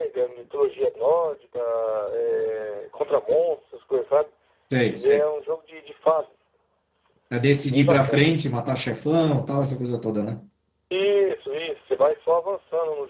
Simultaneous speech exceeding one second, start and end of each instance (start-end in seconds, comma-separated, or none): none